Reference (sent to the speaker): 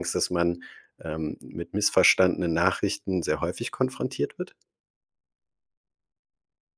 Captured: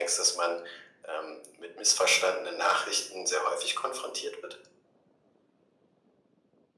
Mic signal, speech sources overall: echo only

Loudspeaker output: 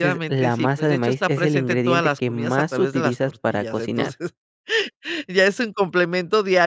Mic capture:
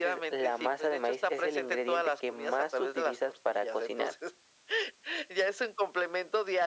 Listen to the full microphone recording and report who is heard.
echo only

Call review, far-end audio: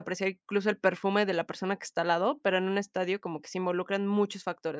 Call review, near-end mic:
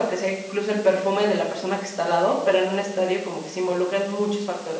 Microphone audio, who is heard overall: echo only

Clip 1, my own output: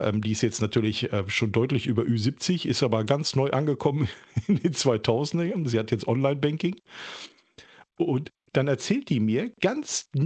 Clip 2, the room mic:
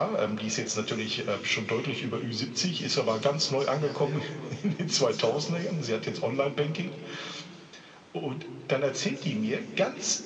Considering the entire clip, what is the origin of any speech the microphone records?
both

